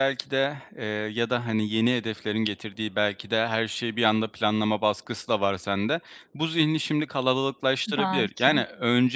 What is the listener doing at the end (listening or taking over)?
listening